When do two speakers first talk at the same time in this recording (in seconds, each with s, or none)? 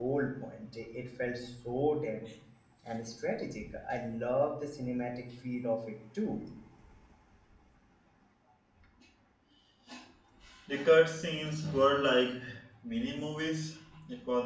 none